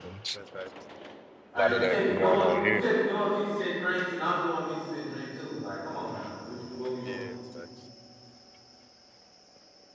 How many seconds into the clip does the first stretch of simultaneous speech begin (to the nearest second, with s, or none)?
2 s